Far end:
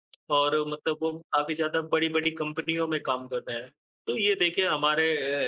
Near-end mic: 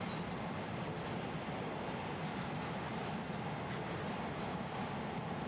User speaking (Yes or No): No